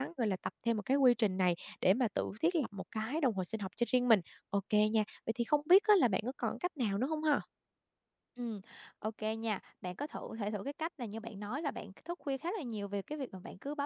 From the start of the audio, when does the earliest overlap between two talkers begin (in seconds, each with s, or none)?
none